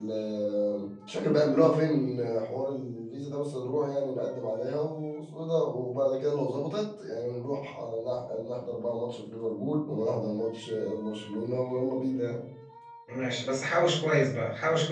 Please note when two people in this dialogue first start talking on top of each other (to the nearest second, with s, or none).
none